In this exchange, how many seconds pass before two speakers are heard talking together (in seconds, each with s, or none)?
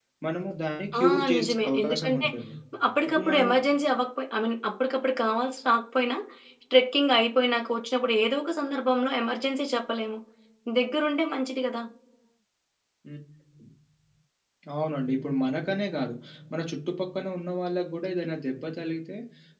1.0 s